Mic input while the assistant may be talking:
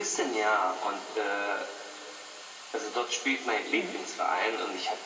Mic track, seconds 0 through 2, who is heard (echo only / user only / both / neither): echo only